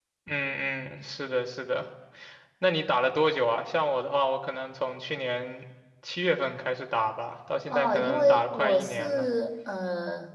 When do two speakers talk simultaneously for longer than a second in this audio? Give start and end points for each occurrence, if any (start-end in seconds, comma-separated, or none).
7.7-9.3